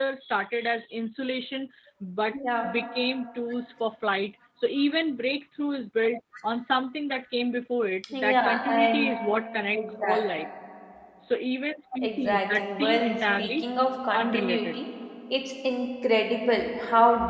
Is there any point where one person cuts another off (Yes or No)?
Yes